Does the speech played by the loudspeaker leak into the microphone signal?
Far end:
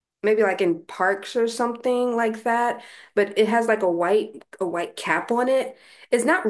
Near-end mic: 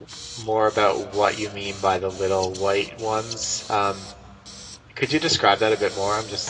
No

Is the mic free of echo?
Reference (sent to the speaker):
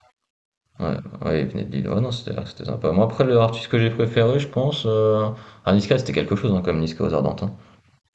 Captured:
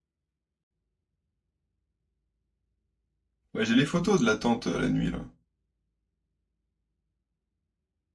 Yes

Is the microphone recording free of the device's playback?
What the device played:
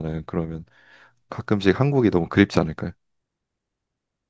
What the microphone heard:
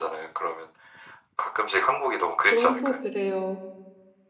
No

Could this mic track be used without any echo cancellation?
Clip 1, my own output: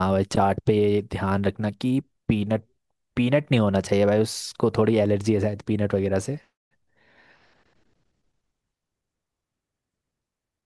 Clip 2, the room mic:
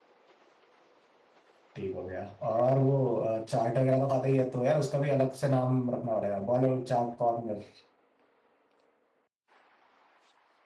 Yes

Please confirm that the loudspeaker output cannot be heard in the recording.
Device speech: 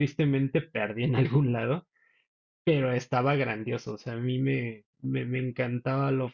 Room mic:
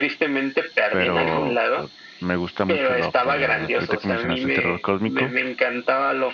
No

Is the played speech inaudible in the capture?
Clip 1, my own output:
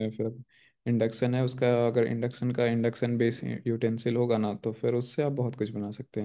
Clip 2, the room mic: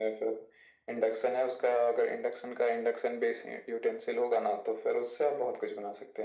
No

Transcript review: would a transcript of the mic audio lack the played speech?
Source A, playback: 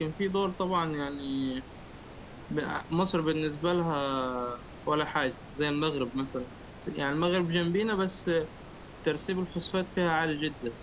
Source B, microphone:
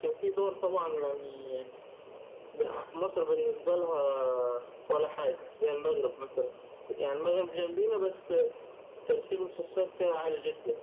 No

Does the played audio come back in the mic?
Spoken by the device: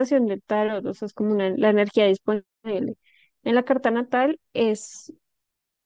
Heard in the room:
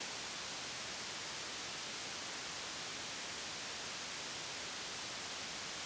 No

